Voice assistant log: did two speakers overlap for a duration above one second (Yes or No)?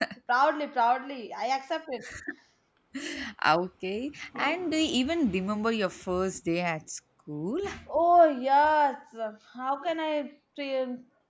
No